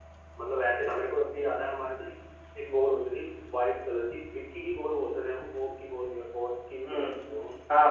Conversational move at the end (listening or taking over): taking over